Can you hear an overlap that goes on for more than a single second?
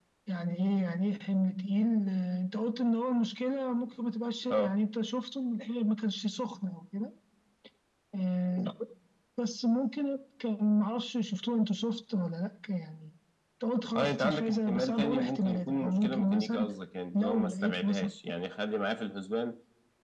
Yes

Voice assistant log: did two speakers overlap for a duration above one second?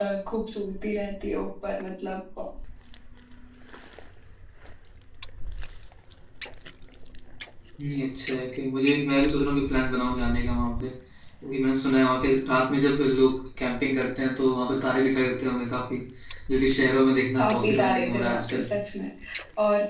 Yes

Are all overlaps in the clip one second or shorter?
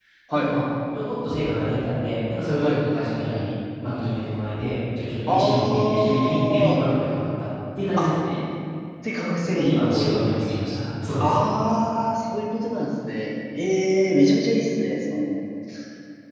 No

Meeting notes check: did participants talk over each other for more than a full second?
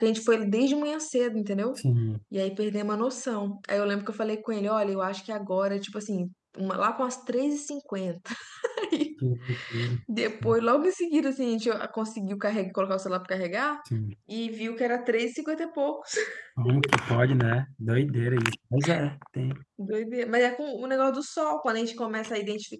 No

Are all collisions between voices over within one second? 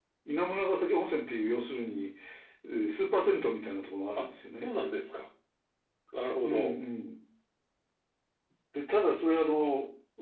Yes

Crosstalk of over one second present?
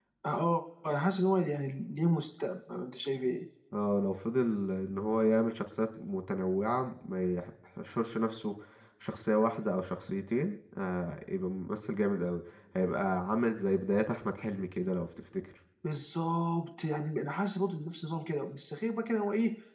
No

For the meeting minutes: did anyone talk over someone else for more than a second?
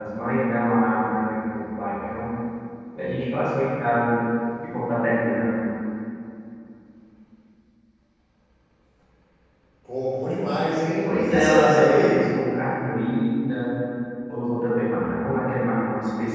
Yes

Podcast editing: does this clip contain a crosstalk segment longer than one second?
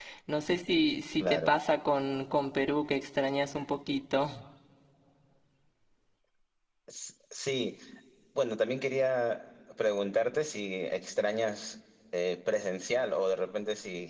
No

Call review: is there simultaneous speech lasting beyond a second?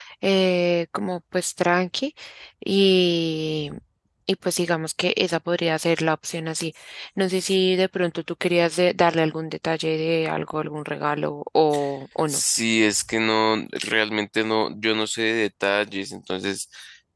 No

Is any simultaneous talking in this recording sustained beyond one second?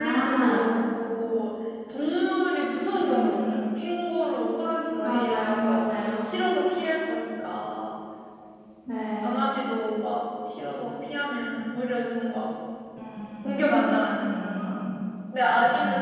Yes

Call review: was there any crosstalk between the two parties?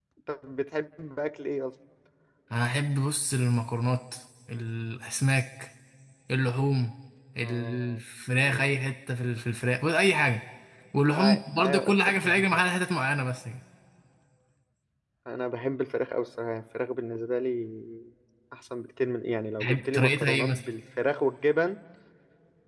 Yes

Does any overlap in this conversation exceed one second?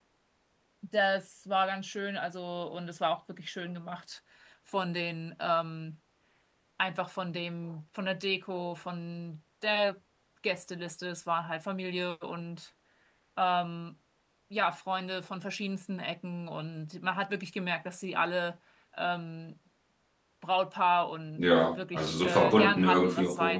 Yes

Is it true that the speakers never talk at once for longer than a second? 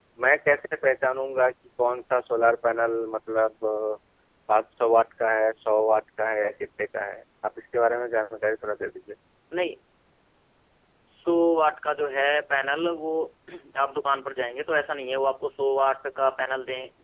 Yes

